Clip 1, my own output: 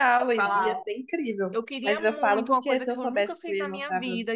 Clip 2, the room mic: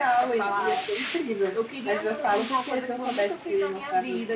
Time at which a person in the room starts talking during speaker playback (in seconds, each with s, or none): none